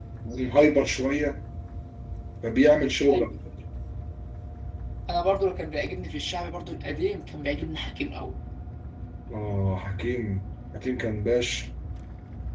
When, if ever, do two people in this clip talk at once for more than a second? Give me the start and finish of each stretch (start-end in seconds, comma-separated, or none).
none